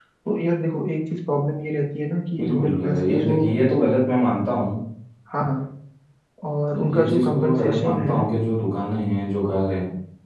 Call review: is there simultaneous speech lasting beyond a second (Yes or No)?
Yes